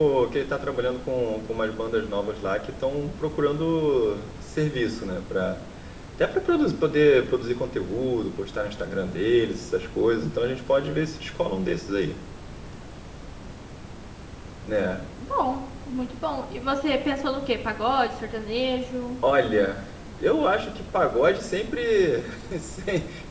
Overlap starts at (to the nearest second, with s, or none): none